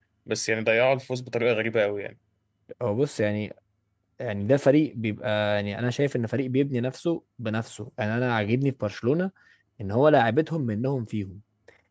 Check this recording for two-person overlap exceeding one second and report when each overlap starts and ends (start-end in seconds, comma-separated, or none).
none